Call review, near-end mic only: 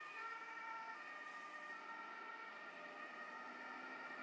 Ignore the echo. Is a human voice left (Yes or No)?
No